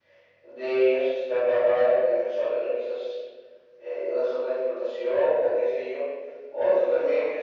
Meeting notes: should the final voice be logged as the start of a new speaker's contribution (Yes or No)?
No